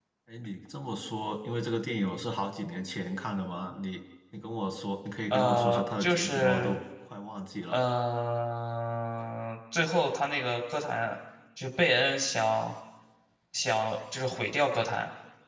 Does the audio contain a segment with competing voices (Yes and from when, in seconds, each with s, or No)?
Yes, from 5.3 s